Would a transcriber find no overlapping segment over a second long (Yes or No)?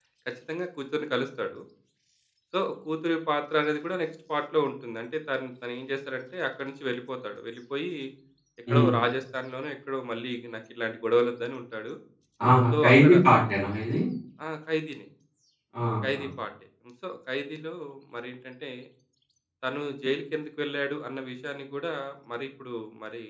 Yes